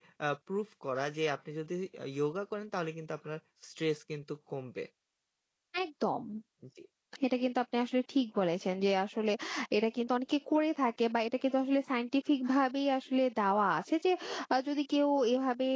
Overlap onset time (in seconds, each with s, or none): none